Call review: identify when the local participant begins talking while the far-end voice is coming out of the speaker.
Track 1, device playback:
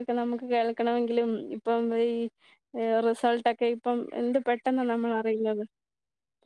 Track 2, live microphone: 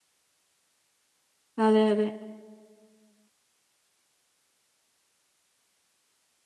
2 s

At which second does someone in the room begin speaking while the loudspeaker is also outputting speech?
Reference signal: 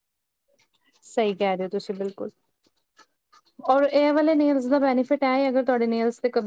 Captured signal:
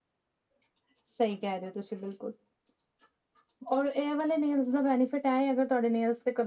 none

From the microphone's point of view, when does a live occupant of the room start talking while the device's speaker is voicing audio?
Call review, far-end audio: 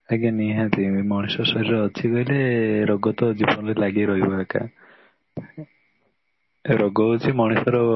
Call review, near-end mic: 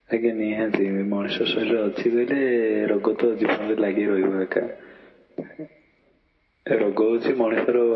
none

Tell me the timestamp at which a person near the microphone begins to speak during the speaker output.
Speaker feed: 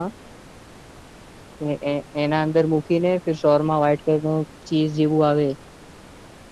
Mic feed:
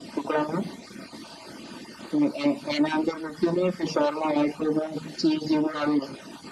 none

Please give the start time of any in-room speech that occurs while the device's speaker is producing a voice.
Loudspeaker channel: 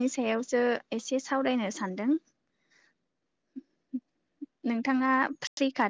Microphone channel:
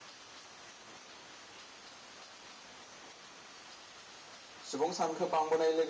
5 s

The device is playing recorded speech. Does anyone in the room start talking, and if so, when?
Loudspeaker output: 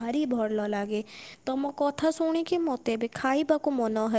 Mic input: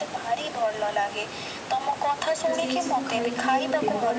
2 s

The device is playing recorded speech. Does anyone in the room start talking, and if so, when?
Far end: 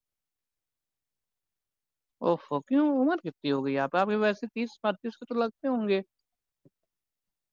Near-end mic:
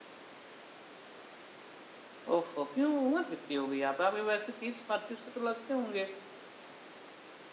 none

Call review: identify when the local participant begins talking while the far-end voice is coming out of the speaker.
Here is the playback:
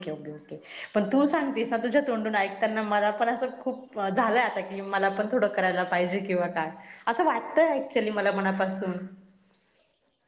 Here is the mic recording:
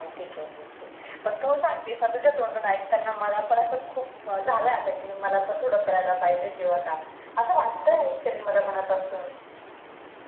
none

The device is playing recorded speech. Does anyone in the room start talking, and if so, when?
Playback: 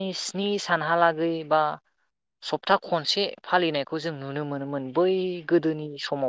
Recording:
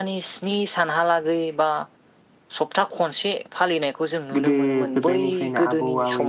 4 s

